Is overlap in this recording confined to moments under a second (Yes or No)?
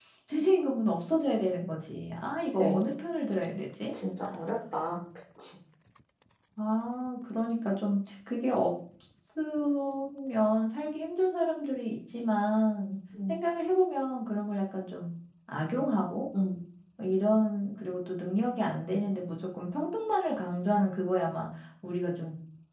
Yes